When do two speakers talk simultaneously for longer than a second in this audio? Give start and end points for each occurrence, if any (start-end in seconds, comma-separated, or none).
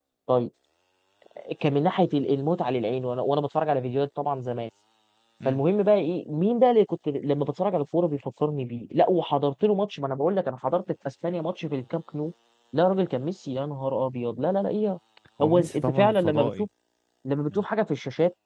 15.4-16.7